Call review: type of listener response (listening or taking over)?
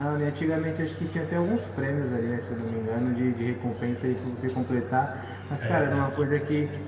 listening